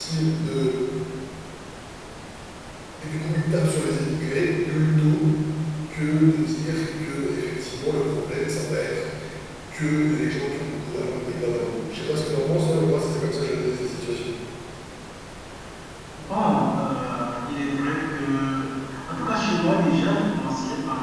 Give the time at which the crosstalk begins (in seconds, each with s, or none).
none